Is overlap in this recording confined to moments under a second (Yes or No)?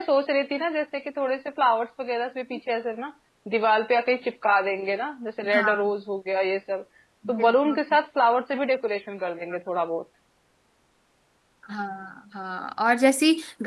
Yes